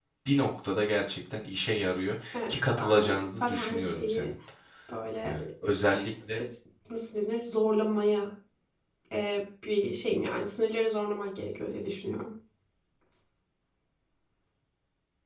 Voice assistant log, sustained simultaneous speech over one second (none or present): present